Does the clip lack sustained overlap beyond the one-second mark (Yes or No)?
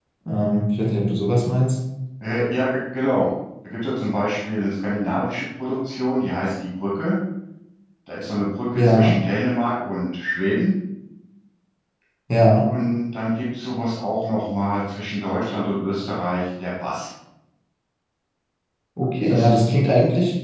Yes